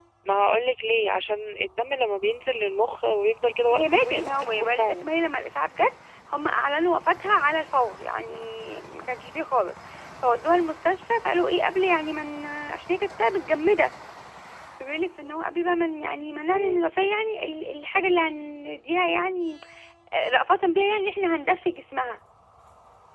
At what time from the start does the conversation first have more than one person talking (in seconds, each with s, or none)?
3.7 s